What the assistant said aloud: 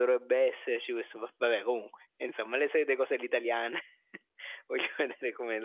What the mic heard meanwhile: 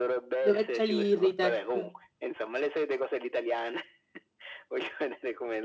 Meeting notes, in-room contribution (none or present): present